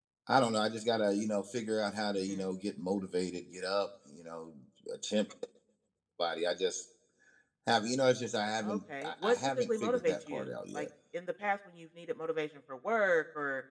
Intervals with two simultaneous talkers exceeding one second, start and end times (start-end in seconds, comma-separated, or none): 8.6-10.9